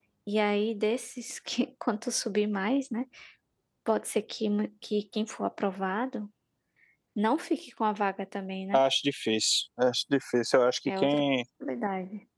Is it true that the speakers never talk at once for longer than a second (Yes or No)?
Yes